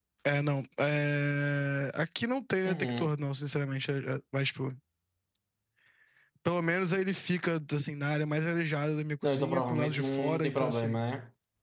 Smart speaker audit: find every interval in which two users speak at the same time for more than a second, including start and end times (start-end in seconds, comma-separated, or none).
9.2-11.0